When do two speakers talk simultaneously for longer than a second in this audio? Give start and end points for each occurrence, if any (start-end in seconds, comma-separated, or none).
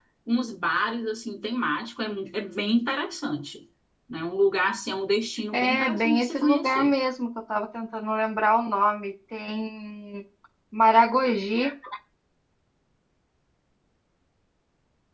5.5-6.9